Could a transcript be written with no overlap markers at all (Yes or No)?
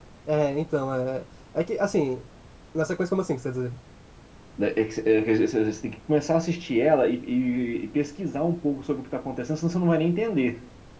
Yes